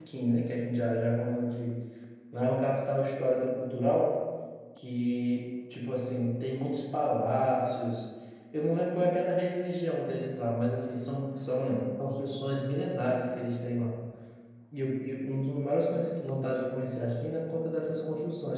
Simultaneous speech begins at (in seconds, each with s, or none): none